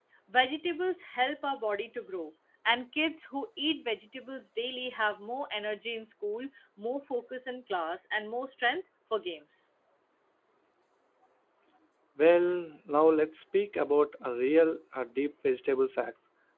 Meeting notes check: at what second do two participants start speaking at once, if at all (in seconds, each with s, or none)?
none